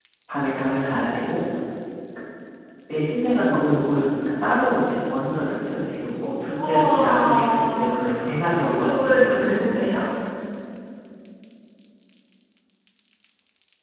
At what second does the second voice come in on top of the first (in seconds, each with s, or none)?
6.6 s